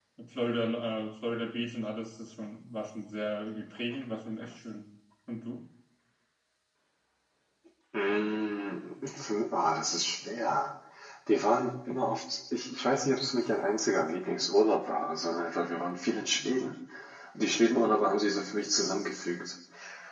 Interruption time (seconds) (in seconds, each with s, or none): none